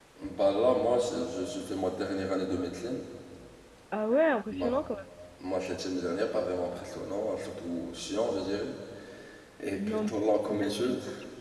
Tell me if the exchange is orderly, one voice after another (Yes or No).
No